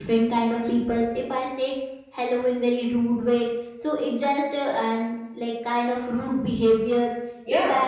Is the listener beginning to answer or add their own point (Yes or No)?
No